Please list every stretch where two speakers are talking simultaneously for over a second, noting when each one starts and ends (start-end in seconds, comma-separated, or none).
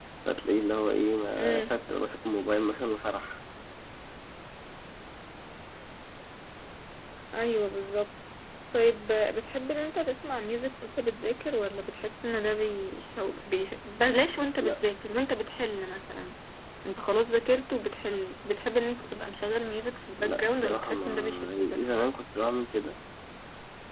20.2-21.8